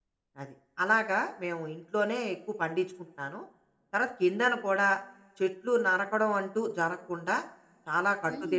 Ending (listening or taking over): taking over